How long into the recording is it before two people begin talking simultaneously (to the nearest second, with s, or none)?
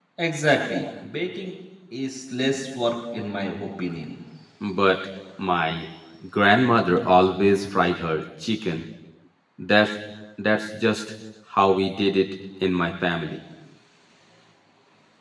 none